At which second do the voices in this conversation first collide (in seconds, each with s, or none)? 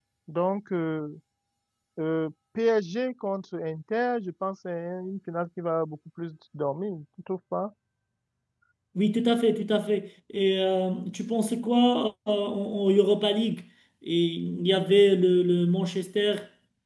none